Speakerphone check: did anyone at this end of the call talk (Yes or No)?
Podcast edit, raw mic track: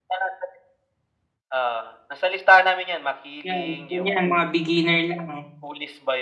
Yes